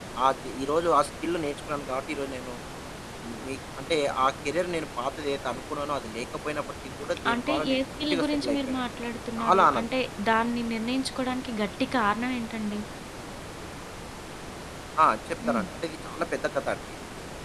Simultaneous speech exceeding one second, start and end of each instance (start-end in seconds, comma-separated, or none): 7.3-8.8